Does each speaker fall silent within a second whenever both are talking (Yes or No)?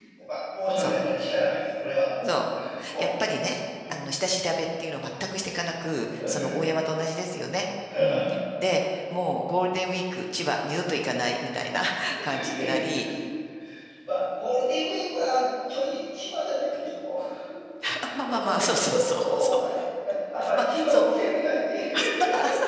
No